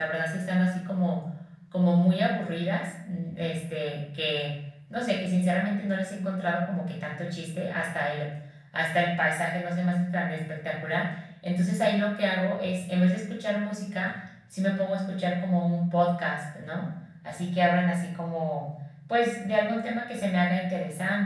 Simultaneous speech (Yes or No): No